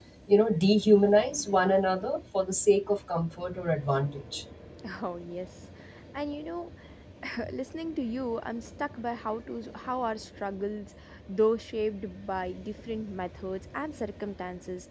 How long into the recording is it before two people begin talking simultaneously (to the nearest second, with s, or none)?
none